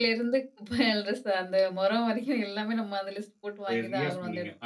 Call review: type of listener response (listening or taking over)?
taking over